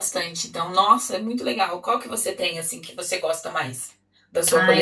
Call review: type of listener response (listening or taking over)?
taking over